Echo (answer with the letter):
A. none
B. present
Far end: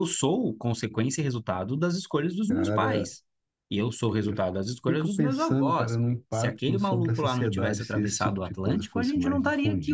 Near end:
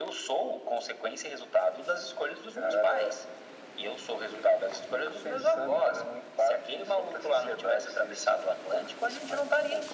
B